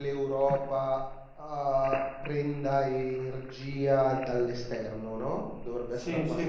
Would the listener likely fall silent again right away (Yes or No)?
No